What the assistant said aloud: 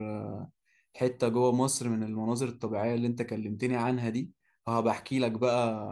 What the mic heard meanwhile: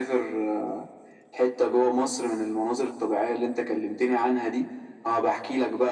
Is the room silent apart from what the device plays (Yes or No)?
Yes